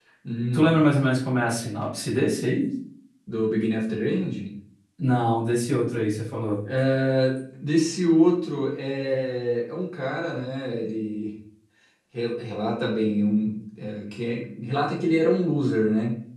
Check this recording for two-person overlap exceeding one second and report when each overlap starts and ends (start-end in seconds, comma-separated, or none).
none